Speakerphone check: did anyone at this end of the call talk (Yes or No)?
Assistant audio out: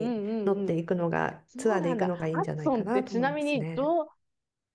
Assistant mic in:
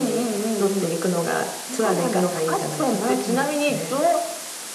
No